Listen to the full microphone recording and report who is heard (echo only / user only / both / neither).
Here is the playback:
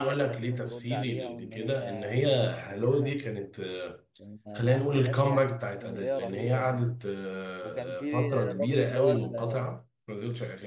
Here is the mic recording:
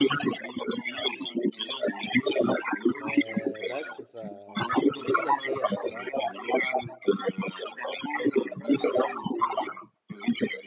both